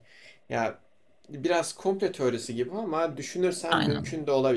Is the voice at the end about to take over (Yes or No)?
No